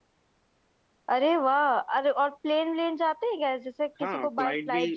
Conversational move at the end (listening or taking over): taking over